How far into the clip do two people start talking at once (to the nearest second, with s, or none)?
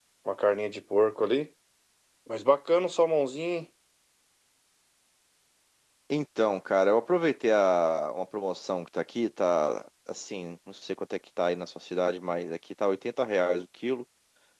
none